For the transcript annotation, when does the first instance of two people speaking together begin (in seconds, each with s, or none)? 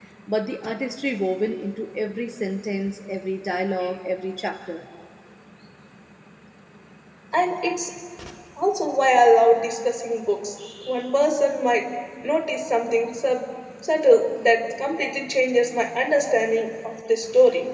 none